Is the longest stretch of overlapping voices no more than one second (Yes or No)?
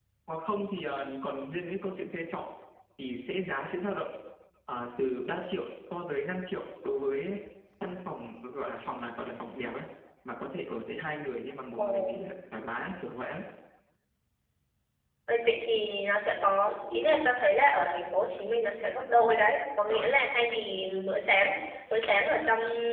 Yes